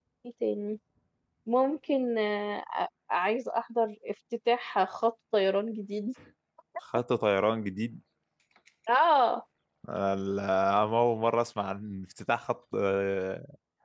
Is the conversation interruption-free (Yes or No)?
Yes